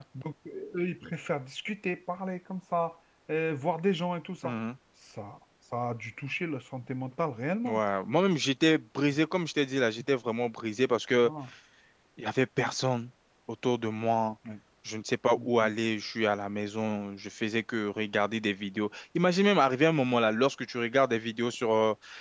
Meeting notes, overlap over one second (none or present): none